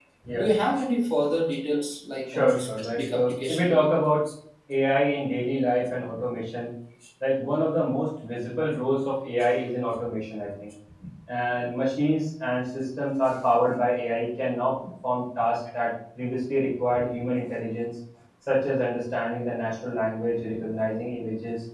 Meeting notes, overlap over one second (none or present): present